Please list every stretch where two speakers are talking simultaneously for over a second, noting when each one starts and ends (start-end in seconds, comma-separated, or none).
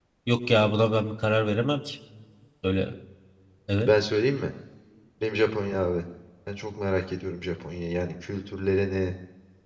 none